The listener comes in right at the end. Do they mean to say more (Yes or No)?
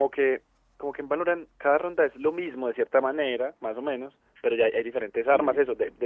No